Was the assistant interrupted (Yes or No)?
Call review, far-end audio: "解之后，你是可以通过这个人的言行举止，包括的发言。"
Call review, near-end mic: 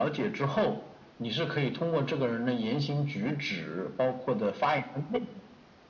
No